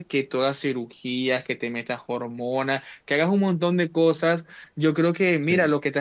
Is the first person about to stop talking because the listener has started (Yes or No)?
No